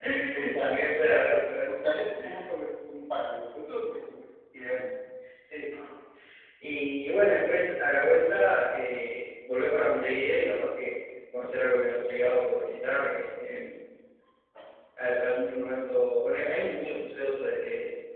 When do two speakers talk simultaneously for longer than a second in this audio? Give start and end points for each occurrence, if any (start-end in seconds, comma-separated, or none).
none